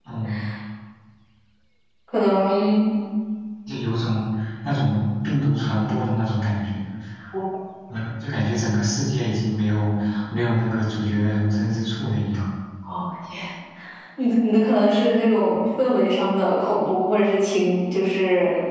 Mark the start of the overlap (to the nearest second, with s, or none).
none